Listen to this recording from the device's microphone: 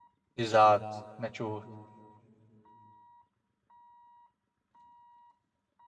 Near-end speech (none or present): present